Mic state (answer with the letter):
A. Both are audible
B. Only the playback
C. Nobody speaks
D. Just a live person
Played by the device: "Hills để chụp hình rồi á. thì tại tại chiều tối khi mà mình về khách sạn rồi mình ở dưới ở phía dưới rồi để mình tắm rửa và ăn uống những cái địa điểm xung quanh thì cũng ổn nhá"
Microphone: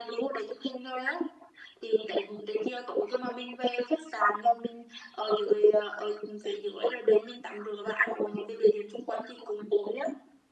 B